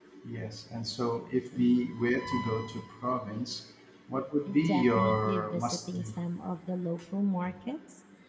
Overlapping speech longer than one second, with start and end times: 4.6-6.2

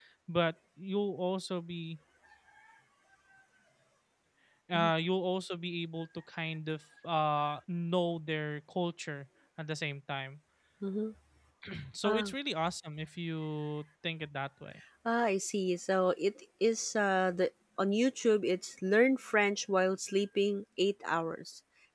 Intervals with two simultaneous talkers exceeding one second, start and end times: none

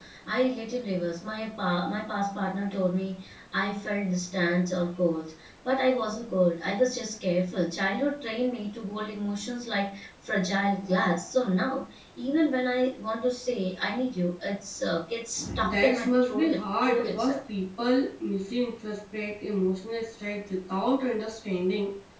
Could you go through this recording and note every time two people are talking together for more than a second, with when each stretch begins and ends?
15.6-17.4

